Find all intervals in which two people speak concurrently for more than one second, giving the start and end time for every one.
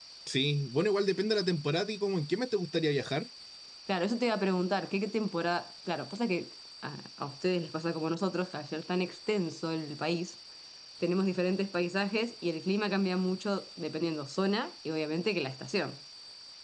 none

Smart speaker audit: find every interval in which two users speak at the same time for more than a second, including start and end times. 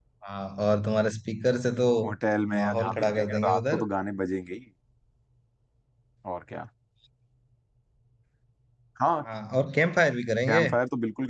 2.5-3.8

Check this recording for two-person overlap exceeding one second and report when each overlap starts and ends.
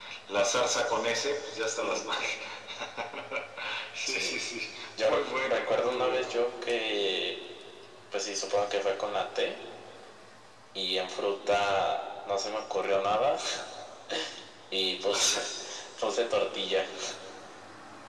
5.1-6.3

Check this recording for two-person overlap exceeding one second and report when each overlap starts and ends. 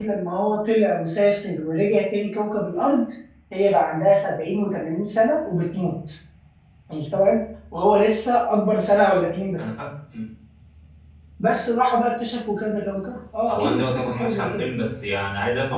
13.5-14.7

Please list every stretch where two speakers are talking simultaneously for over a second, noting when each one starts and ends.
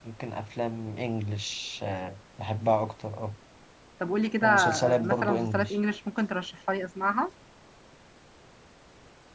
4.4-5.8

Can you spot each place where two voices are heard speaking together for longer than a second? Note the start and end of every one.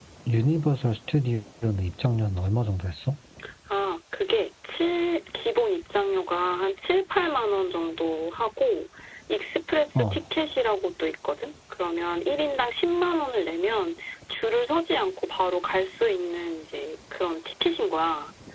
none

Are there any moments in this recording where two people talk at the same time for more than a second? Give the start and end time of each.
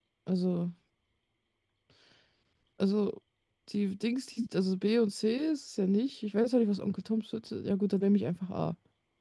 none

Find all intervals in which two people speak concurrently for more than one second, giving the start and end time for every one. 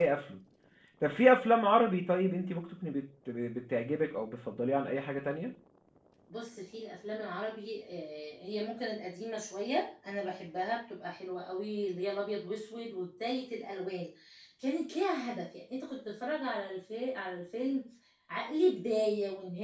none

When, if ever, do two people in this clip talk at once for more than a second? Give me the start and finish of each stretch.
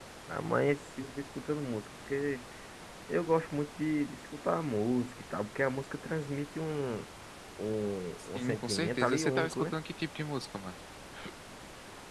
8.4-9.7

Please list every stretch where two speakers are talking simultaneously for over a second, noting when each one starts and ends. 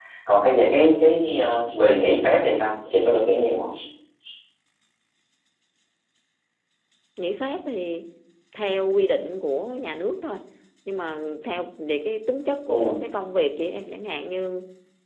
none

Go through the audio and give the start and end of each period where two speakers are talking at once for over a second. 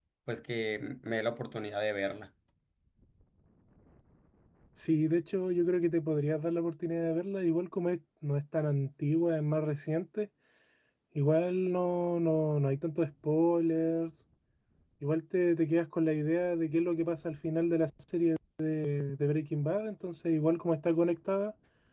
none

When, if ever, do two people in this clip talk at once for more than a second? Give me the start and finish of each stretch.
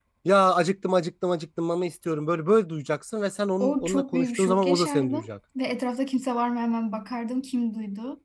3.6-5.3

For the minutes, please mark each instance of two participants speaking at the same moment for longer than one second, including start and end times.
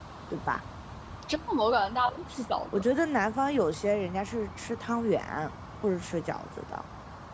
none

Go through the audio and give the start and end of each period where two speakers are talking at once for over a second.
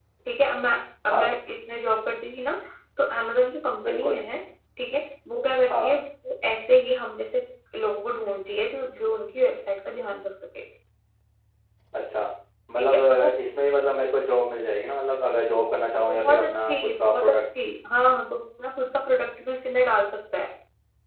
16.1-17.4

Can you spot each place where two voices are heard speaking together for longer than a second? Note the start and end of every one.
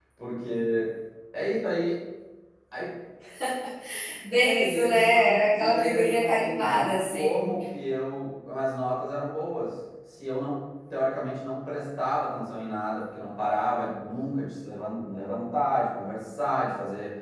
4.4-7.5

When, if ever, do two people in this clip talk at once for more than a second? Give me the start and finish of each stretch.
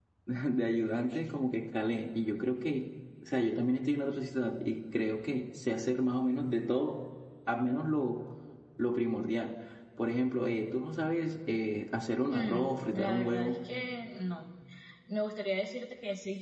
12.3-13.6

